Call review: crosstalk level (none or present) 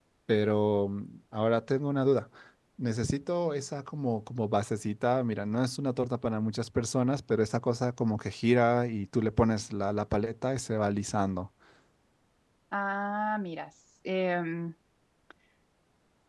none